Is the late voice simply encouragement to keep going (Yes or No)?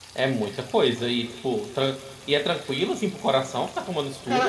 No